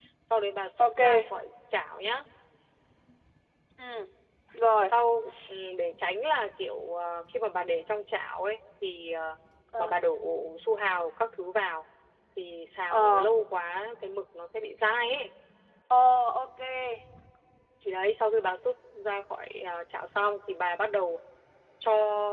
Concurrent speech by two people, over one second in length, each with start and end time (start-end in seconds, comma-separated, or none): none